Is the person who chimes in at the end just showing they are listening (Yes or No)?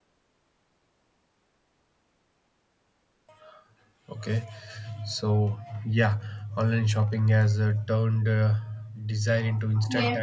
No